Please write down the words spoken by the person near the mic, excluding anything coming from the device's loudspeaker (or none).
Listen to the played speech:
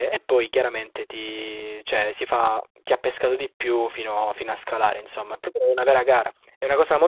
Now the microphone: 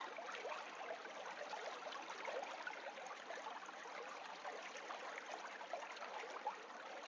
none